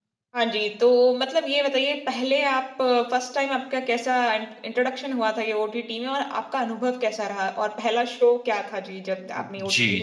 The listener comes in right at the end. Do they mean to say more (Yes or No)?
Yes